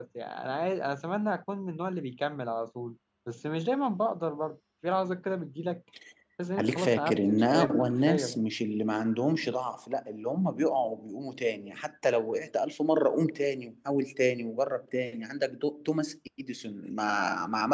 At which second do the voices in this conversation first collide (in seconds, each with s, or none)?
6.6 s